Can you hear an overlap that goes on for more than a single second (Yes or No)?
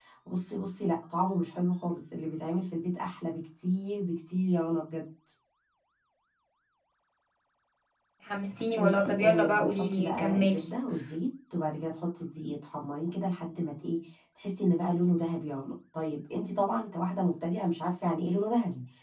Yes